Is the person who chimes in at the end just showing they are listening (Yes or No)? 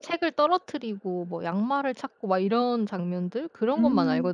No